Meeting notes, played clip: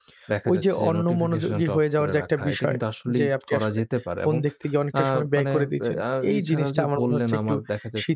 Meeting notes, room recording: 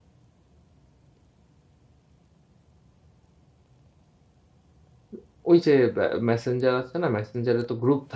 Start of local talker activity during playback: 5.1 s

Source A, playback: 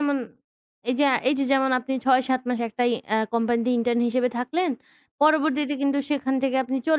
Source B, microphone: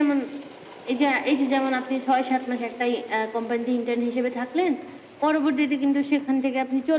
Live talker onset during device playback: none

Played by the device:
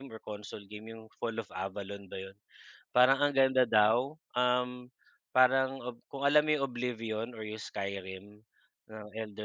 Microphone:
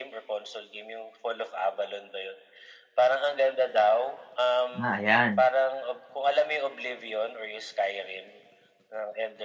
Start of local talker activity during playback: 4.8 s

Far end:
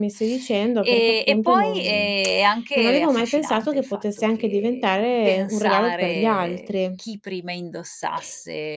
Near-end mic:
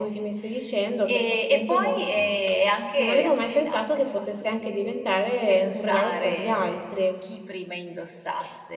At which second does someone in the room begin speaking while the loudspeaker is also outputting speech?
none

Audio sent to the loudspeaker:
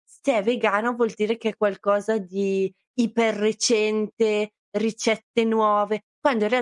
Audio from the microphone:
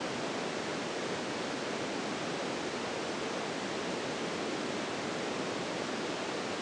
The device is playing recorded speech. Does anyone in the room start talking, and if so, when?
none

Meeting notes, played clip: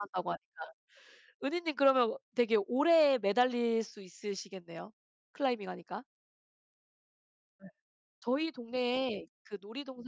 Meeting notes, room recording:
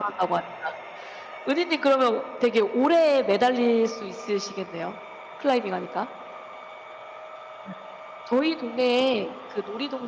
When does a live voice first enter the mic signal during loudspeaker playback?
none

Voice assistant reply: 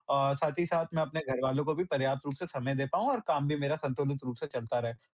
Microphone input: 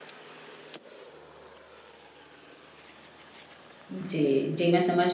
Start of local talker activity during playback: 3.9 s

